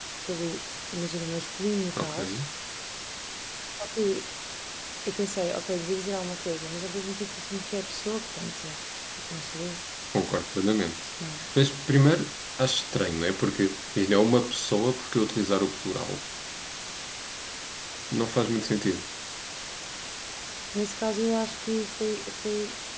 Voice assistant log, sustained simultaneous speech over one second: none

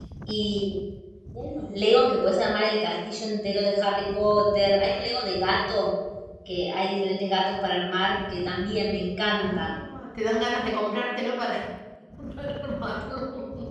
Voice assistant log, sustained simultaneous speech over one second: none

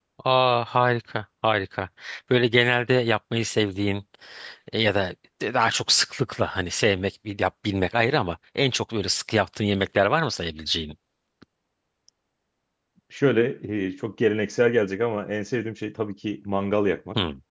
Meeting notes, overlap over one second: none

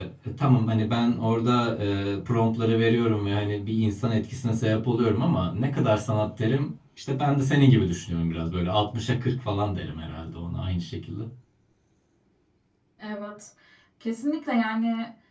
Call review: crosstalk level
none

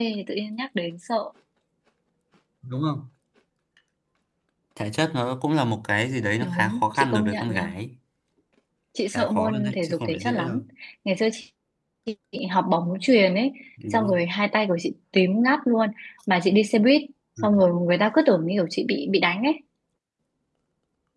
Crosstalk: present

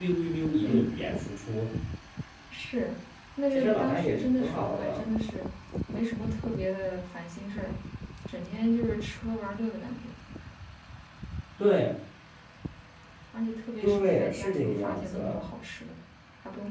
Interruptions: present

